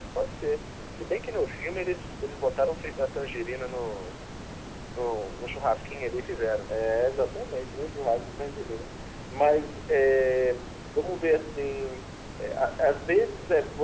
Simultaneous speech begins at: none

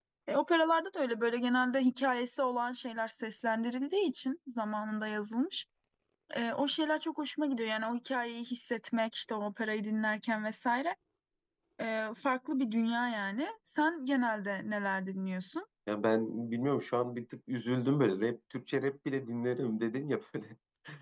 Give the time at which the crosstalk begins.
none

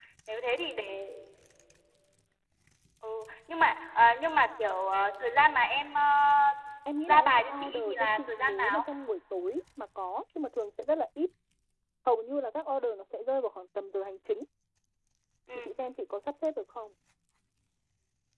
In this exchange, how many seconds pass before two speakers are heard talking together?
7.1 s

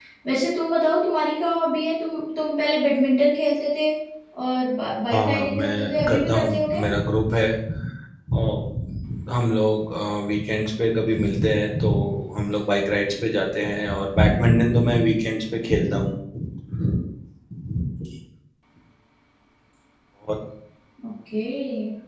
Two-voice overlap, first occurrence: 5.1 s

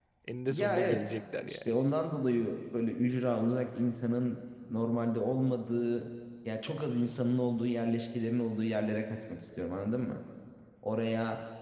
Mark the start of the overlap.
0.5 s

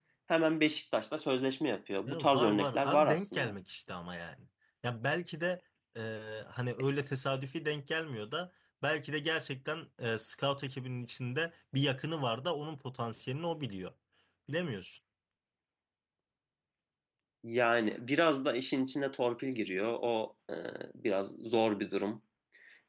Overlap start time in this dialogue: 2.1 s

